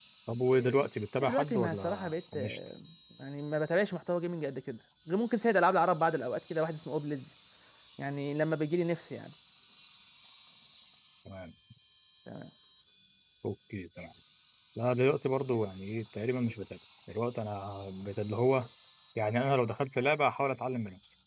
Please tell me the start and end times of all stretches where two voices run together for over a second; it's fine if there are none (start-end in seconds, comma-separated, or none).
1.3-2.6